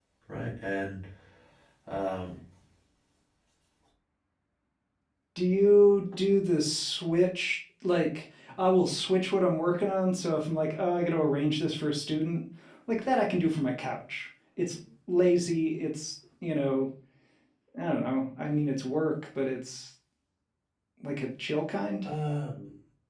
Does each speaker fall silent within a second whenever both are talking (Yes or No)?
Yes